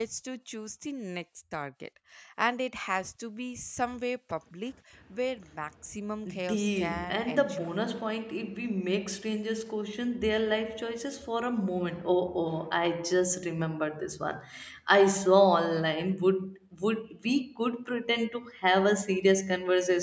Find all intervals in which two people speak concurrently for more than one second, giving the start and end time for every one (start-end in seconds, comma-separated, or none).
6.5-7.7